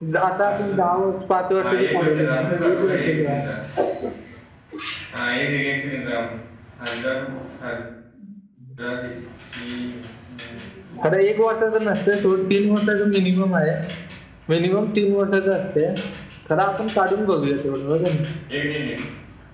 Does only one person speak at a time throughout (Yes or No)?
No